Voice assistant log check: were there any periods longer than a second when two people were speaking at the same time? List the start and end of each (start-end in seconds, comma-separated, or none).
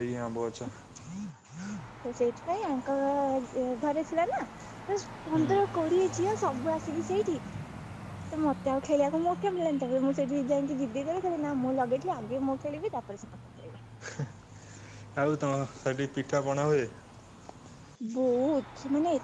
none